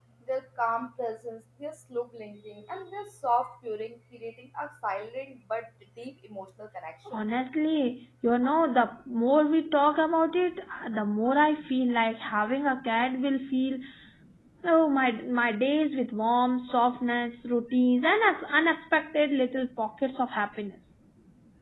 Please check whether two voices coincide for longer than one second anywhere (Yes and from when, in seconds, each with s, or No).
No